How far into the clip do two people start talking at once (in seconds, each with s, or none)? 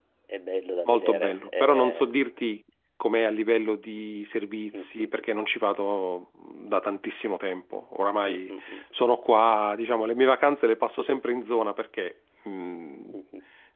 0.8 s